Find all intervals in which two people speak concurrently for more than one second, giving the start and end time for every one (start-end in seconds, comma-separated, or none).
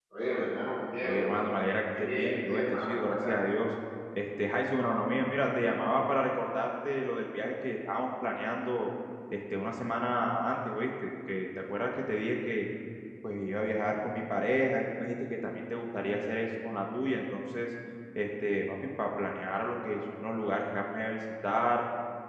2.0-3.4